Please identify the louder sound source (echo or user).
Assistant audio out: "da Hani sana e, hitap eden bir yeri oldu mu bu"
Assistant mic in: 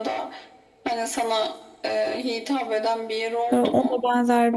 user